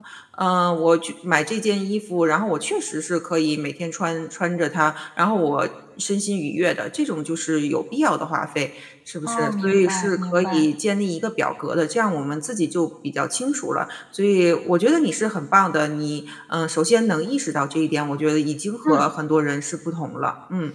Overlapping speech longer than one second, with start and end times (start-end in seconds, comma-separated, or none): 9.2-10.7